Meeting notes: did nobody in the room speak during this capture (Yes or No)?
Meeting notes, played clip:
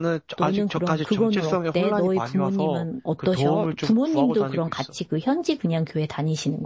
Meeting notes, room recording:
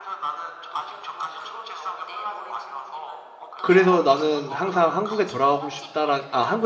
No